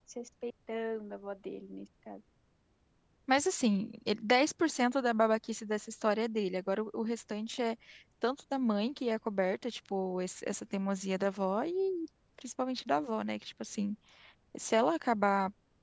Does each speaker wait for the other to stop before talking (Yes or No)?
Yes